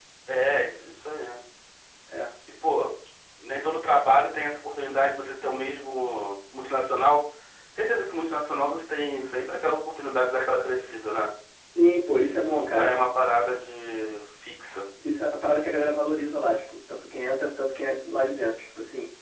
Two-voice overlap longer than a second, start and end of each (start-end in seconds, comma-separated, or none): none